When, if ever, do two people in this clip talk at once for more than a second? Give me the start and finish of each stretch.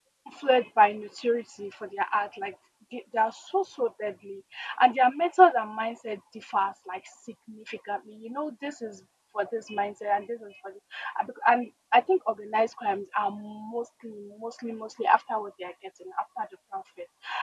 none

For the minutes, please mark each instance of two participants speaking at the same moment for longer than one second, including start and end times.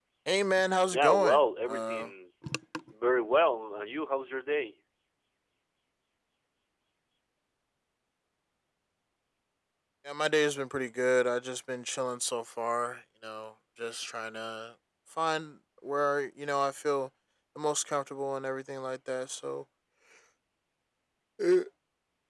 0.9-2.1

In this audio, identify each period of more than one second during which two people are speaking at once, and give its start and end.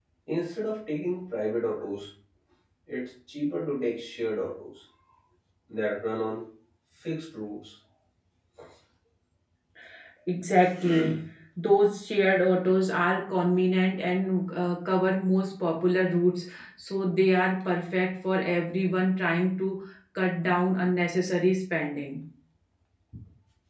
none

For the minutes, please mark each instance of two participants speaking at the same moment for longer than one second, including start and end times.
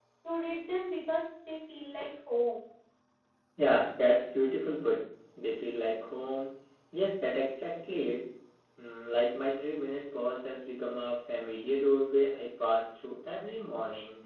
none

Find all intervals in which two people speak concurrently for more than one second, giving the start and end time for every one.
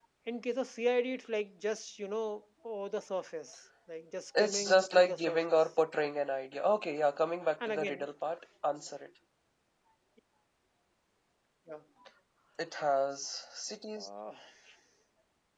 4.4-5.6

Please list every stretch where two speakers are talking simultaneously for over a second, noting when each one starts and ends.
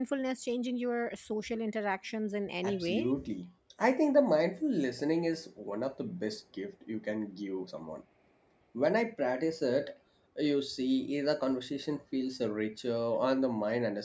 none

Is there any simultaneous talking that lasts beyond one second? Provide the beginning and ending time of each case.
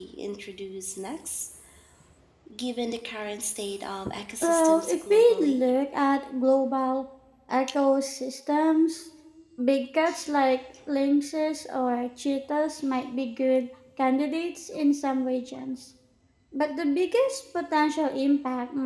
4.4-5.6

